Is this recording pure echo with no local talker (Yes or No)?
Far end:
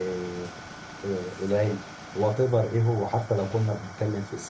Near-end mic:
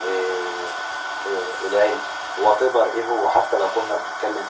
Yes